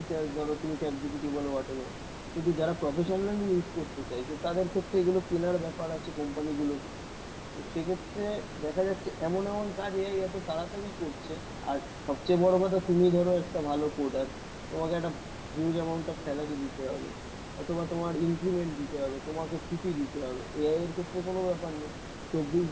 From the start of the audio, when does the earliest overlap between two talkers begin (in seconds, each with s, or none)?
none